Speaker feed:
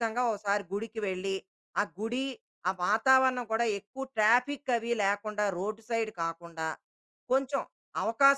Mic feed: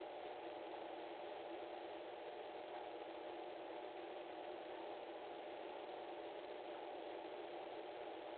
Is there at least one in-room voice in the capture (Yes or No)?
No